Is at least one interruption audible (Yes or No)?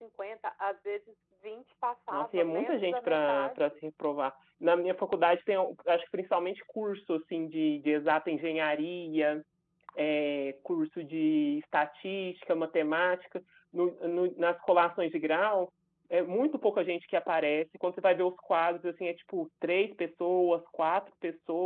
Yes